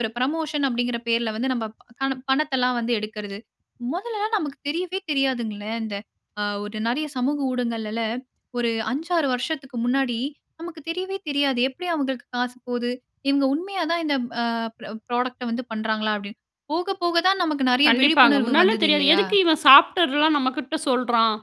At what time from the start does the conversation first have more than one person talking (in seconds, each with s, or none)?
17.8 s